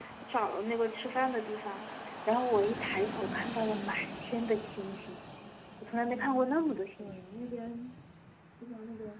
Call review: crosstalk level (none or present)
present